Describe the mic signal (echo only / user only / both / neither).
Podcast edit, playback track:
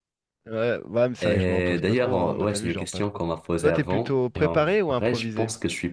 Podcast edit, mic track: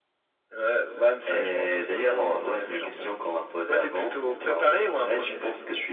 echo only